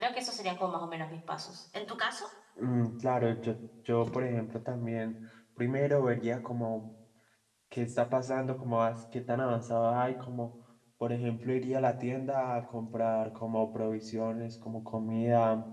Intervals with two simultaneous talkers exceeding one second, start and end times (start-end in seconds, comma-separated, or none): none